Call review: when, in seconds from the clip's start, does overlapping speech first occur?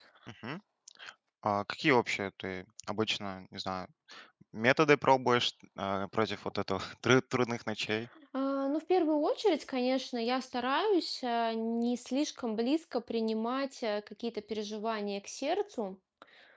none

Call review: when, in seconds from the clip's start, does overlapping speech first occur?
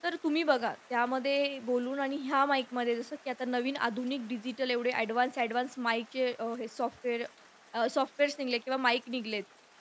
none

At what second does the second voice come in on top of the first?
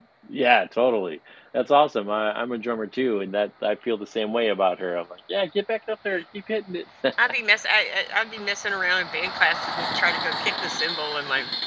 none

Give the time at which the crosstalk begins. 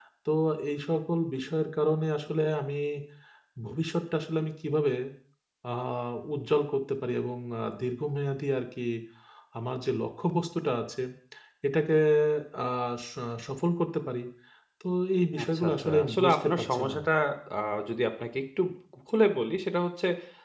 15.4 s

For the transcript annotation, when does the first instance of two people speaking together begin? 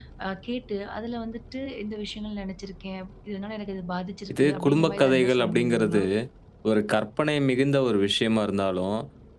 4.3 s

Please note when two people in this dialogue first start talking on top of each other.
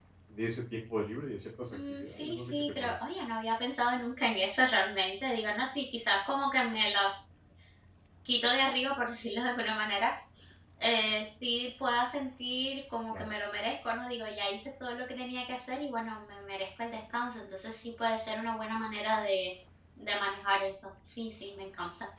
1.7 s

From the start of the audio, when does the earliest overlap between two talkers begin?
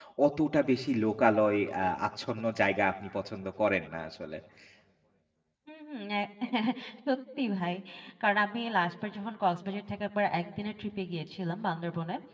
none

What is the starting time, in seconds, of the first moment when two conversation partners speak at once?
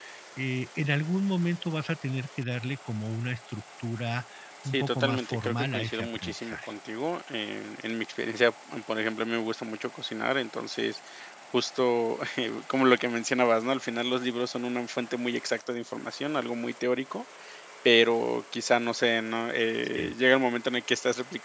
4.6 s

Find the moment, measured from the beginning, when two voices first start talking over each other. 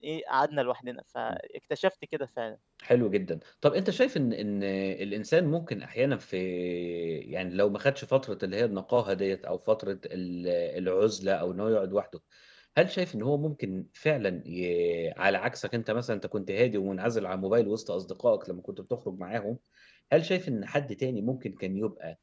none

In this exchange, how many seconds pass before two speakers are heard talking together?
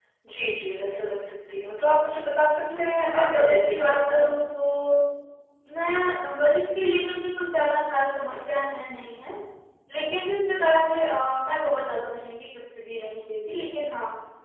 2.6 s

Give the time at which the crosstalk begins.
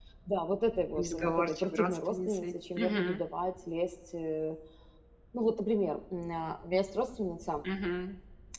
1.0 s

